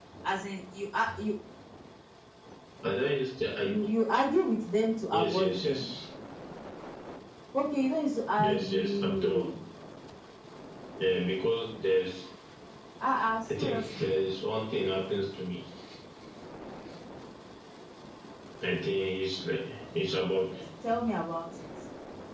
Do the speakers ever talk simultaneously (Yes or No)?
Yes